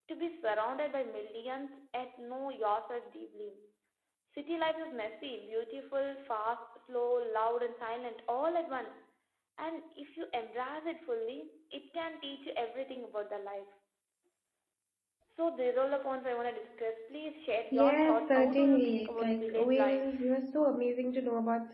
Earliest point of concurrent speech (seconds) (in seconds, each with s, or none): 17.7 s